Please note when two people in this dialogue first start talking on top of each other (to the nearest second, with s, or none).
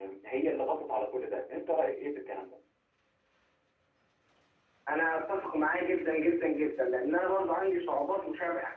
none